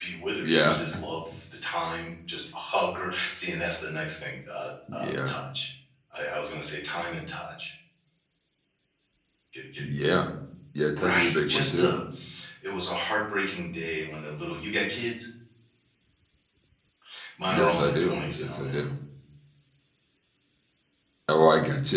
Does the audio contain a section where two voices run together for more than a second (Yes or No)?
Yes